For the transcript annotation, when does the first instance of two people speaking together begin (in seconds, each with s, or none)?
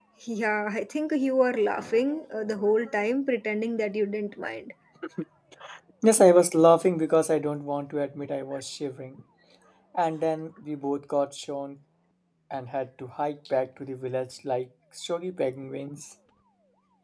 none